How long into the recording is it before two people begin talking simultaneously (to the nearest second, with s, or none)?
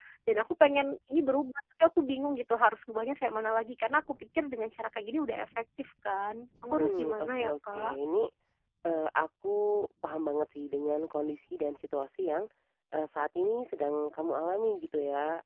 7 s